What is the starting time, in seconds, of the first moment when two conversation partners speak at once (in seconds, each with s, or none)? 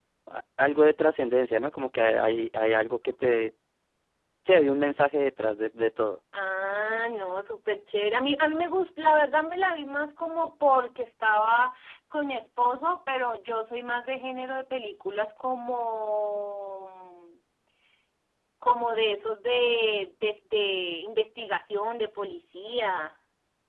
none